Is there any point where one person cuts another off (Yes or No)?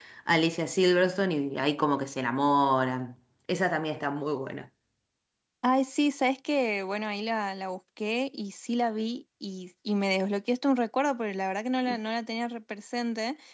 No